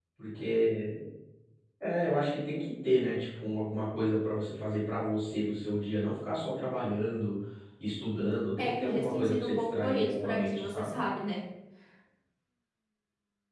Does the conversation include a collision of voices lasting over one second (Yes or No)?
Yes